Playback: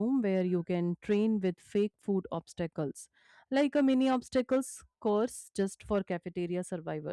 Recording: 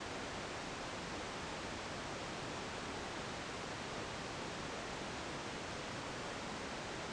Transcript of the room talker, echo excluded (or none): none